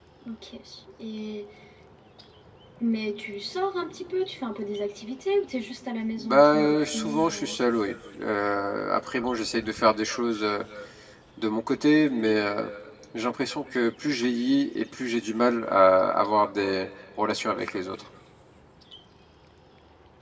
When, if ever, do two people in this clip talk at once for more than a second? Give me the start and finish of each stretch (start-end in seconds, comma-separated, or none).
6.2-7.5